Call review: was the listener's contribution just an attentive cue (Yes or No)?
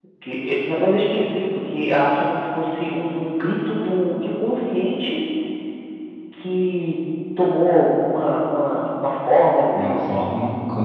No